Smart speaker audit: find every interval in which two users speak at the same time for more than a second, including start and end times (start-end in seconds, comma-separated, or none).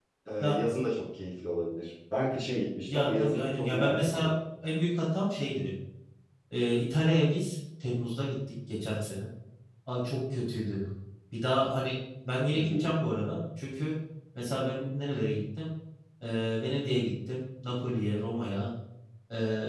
2.9-4.3